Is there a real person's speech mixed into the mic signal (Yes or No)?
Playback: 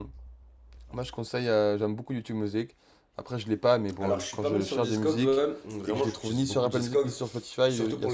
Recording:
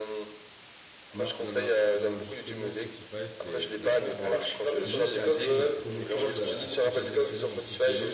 Yes